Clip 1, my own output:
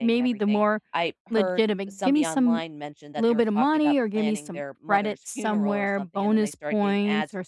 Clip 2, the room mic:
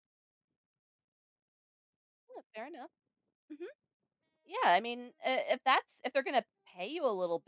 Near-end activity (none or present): present